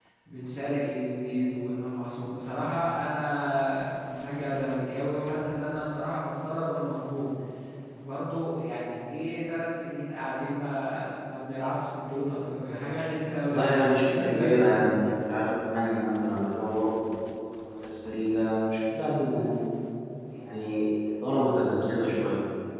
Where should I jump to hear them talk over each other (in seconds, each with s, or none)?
13.5 s